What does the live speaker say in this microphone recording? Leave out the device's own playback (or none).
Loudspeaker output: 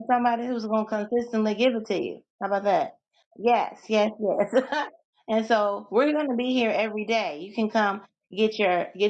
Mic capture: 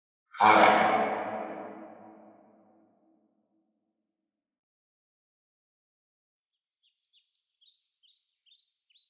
All right.